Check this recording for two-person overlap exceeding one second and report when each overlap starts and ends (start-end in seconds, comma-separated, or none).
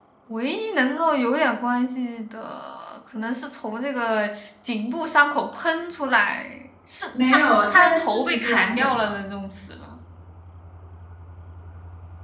7.3-9.1